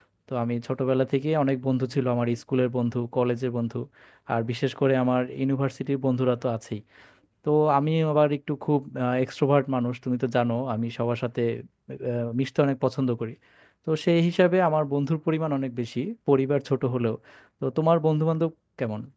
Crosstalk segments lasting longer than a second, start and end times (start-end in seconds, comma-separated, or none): none